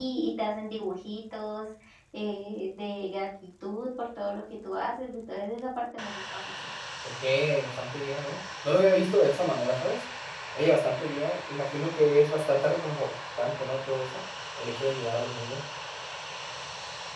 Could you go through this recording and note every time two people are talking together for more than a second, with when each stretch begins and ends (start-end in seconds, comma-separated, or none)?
none